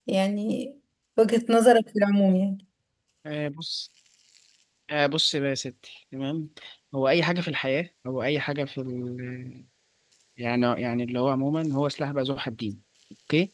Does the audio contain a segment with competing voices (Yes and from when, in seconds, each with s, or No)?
No